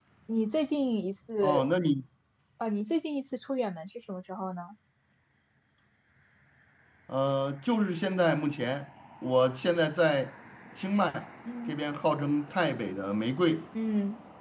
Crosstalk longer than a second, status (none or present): none